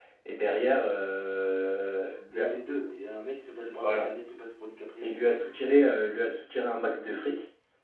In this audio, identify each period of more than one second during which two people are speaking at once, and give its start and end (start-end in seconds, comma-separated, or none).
none